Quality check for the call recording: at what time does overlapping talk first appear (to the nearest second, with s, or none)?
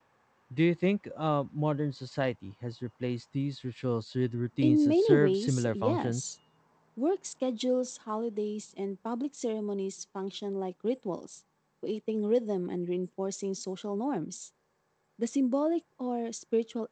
5 s